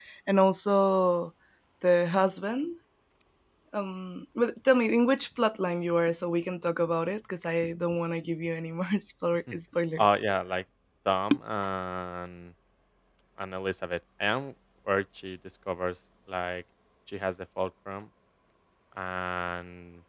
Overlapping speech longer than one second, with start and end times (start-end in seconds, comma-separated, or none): none